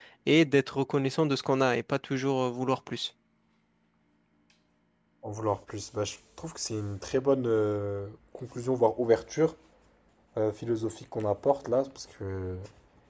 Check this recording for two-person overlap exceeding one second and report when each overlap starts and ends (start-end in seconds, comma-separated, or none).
none